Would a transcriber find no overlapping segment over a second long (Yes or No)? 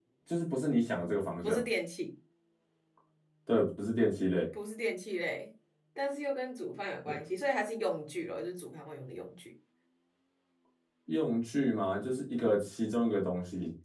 Yes